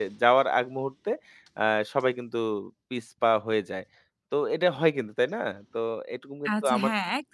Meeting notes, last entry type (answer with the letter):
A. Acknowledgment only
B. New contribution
B